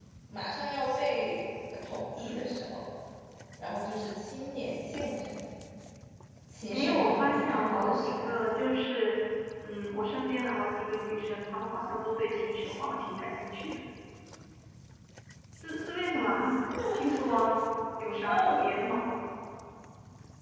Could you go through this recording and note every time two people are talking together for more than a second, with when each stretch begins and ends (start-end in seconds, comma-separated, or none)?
6.7-8.3